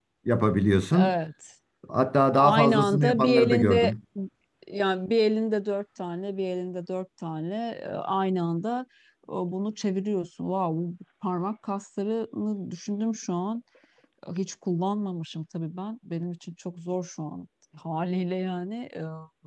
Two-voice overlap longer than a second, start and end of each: 2.4-3.9

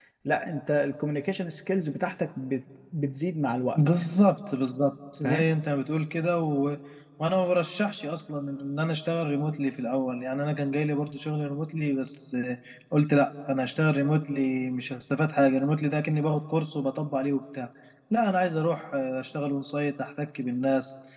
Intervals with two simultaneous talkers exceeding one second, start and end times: none

